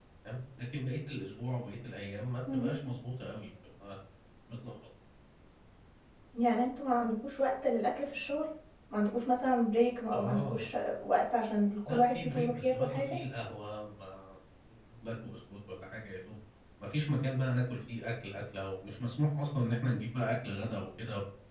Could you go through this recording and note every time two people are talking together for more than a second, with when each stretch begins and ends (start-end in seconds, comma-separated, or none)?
11.9-13.2